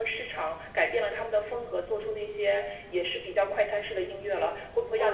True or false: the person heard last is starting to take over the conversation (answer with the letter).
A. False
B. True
B